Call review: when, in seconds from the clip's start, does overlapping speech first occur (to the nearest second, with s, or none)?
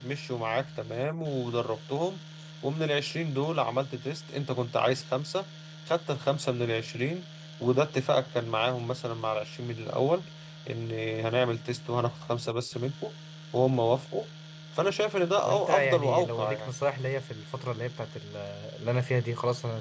15 s